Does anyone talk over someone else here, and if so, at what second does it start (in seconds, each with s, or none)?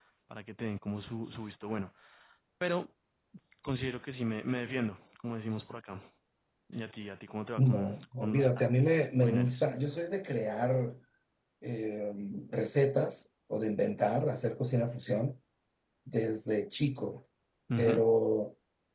7.6 s